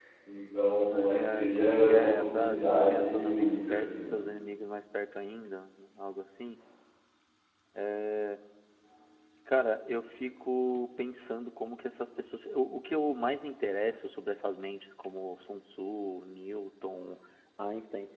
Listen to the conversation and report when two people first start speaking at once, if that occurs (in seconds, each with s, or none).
0.9 s